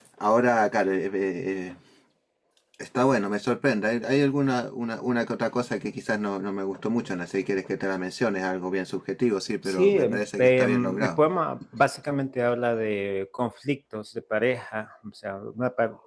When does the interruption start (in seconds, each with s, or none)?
9.7 s